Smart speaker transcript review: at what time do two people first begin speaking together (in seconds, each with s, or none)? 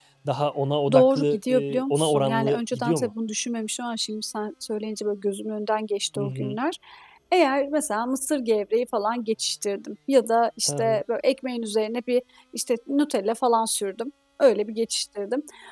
0.9 s